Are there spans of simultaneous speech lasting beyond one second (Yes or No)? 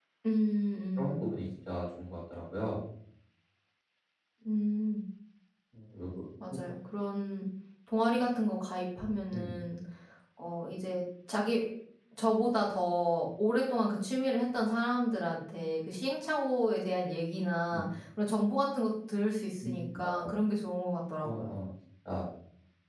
No